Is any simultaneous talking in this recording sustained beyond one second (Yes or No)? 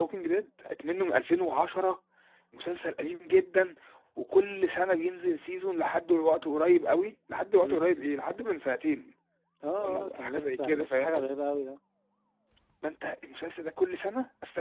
Yes